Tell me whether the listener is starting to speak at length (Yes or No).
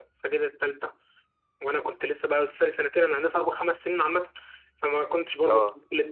No